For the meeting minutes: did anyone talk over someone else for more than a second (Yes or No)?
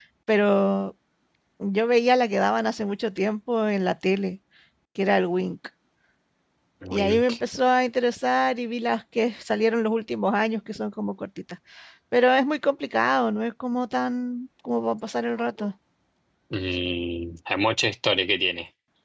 No